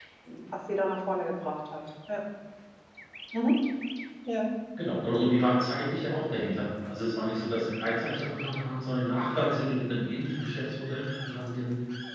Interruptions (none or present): none